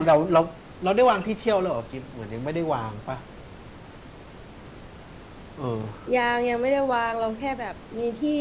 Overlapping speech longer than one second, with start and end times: none

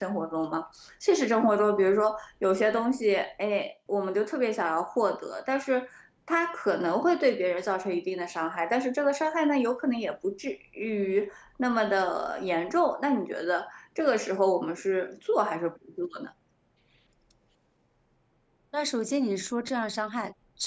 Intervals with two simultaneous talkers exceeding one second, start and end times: none

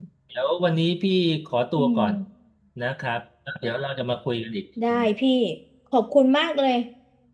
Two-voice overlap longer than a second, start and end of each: none

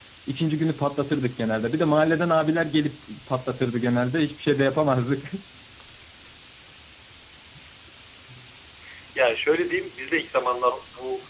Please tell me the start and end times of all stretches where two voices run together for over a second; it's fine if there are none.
none

